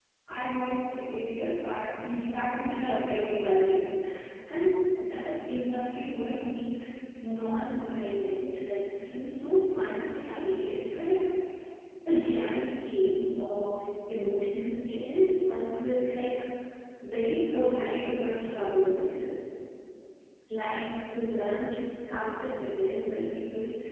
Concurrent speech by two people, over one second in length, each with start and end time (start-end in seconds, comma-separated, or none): 2.6-3.8